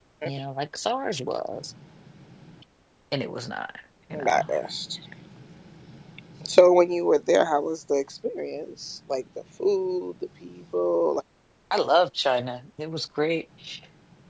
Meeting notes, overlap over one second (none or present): none